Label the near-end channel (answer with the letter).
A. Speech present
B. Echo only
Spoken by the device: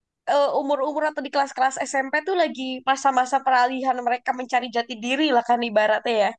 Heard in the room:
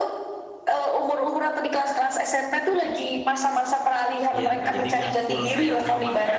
A